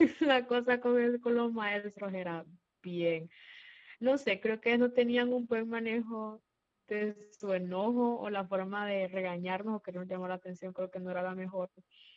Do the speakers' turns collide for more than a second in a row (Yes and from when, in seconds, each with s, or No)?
No